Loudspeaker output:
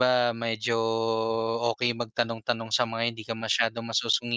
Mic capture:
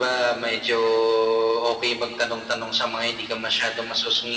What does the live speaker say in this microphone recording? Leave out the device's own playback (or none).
none